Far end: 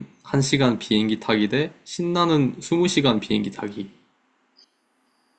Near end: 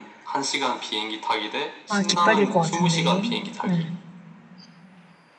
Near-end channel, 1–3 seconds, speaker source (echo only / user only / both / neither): both